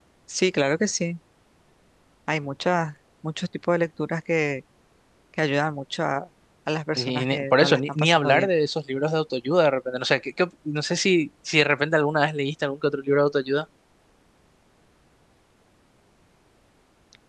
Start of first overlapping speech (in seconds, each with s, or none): 7.0 s